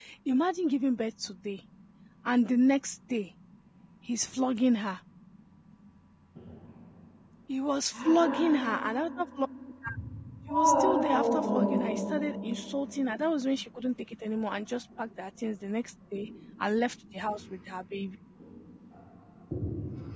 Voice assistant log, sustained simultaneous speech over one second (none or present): present